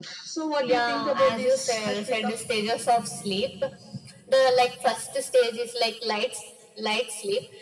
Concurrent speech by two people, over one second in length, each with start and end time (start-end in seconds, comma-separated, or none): 0.6-2.3